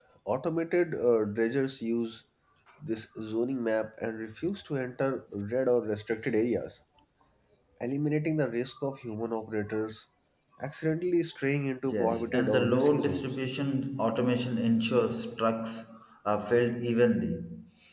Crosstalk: present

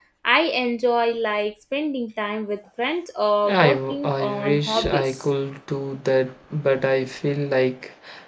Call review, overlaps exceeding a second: present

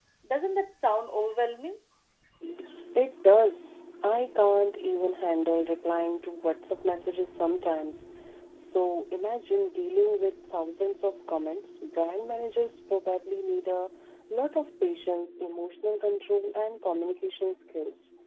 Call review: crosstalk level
none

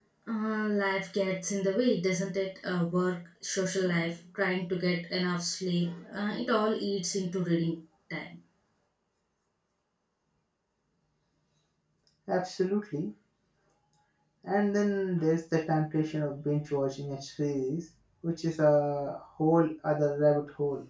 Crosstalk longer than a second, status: none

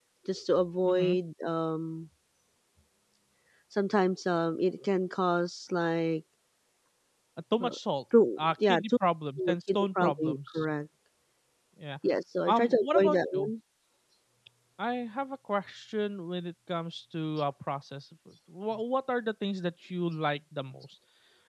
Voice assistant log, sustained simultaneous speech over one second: present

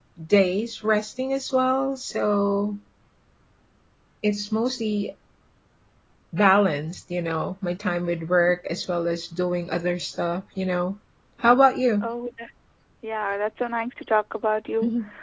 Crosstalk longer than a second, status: none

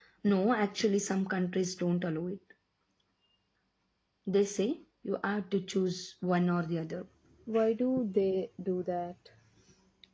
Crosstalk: none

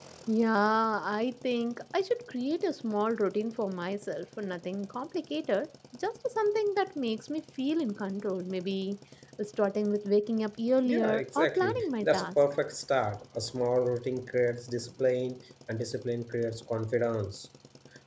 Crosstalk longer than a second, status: present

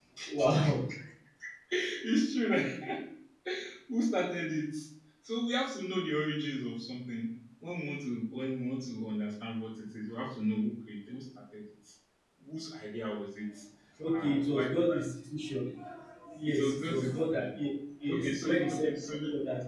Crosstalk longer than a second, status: present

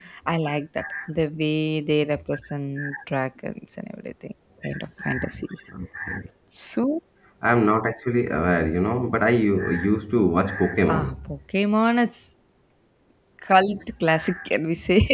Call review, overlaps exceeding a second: none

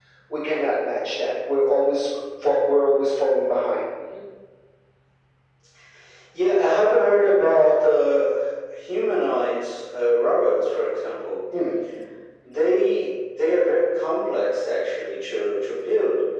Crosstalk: none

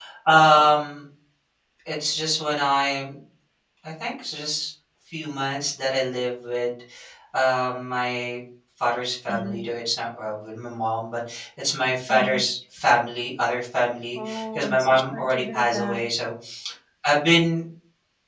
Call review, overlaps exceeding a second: present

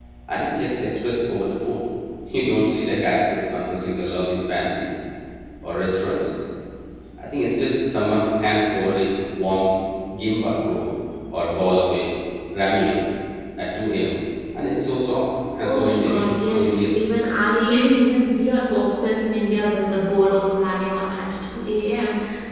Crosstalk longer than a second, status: present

